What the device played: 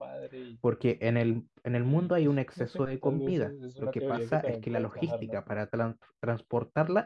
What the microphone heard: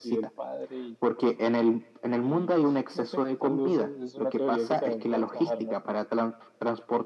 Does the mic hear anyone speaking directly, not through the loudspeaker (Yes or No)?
No